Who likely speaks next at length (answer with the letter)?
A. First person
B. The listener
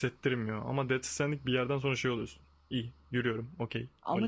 B